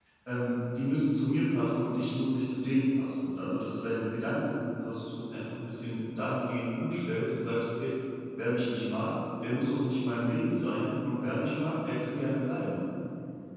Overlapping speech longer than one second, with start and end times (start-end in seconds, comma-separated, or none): none